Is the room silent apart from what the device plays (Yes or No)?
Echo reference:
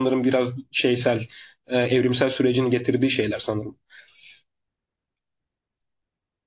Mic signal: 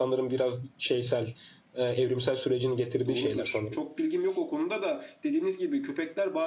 No